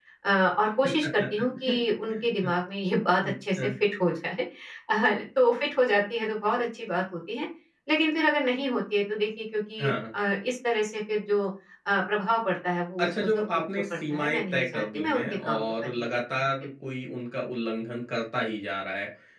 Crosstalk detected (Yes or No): Yes